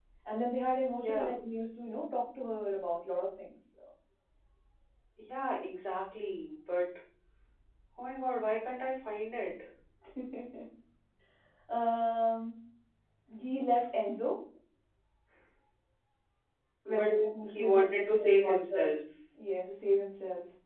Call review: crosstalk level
present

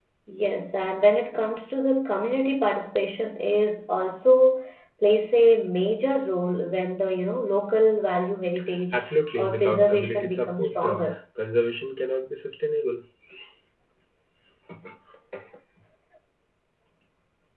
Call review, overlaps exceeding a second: present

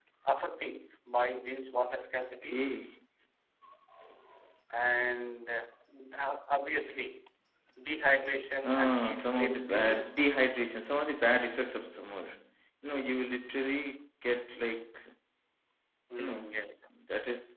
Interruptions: present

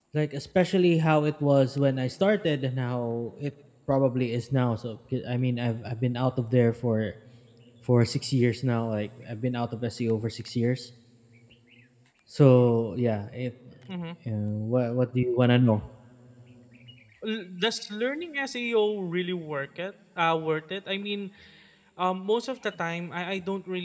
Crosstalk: none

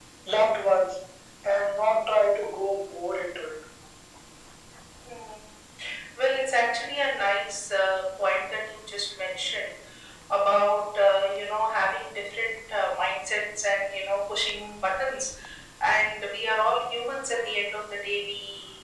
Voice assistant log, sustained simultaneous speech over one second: none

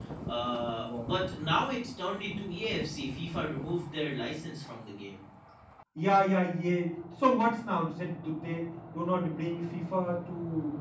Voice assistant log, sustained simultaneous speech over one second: none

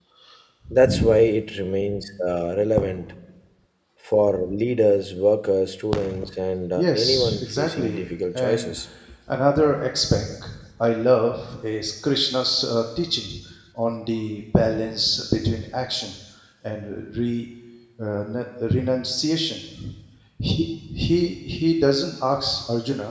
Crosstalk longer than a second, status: present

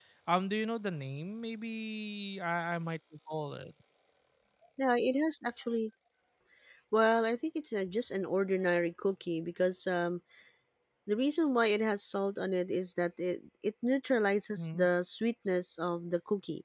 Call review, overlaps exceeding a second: none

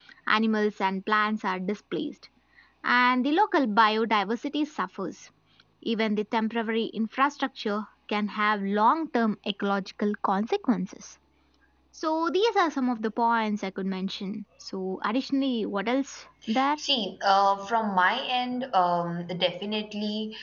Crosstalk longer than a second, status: none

